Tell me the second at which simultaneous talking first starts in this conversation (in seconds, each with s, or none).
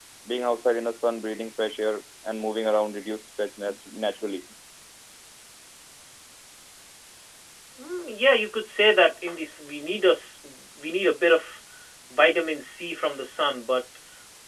none